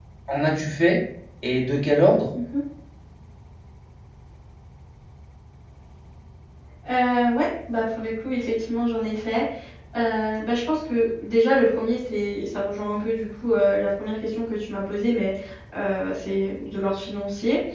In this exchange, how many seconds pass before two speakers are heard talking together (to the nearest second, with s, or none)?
none